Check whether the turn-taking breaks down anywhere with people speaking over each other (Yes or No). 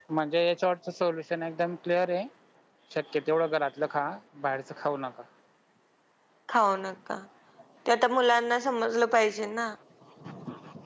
No